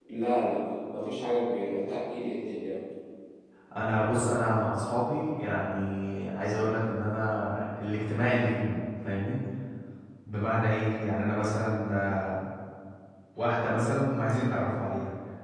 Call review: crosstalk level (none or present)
none